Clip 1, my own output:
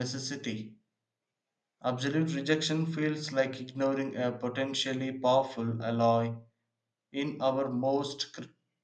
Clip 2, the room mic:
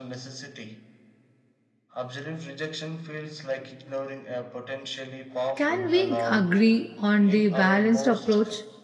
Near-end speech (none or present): present